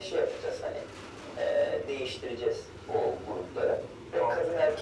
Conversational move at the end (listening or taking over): listening